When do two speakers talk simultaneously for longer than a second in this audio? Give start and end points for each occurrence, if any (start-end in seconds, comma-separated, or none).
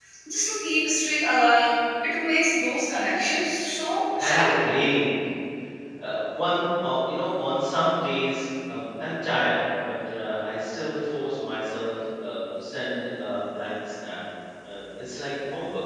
none